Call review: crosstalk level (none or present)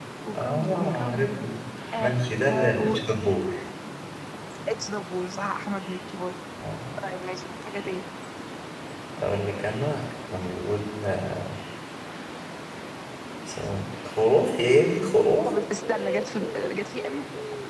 present